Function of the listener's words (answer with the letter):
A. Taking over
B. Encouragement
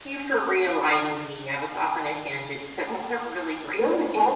A